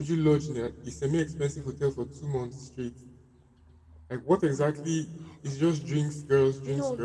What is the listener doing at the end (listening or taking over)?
taking over